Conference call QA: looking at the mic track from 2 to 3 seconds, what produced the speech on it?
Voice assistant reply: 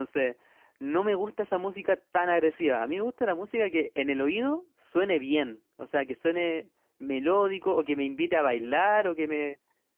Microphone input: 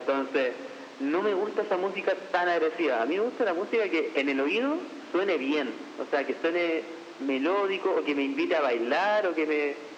echo only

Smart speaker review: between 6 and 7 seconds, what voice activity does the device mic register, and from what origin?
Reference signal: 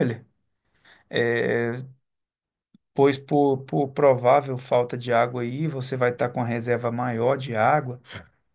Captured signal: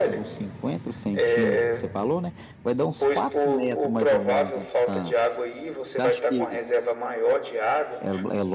both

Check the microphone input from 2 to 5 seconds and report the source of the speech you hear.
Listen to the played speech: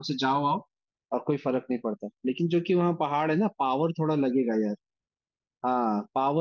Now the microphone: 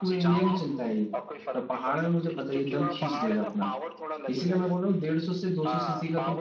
both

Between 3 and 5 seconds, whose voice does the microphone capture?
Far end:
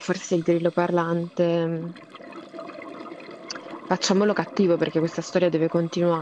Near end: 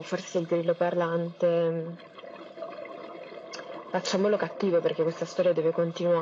echo only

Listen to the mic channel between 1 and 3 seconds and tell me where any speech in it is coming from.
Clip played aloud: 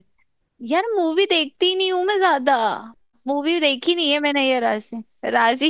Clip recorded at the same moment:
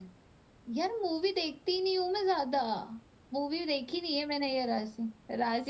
echo only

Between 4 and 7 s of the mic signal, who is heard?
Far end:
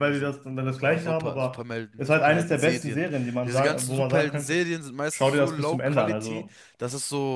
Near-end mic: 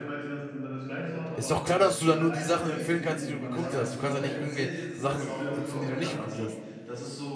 both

